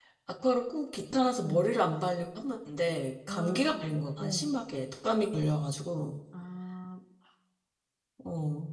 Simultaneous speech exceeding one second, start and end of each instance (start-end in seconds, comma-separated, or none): 3.3-4.5